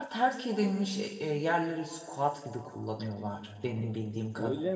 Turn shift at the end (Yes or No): Yes